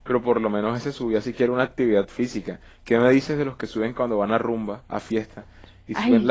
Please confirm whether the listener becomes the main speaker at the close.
No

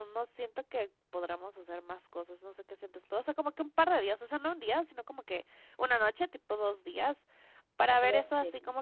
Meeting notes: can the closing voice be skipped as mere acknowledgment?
Yes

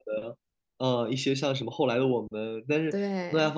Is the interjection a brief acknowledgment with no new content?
Yes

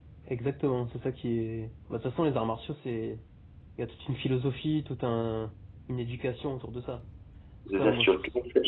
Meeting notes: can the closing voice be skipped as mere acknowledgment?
No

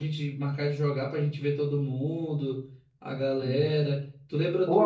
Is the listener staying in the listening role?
Yes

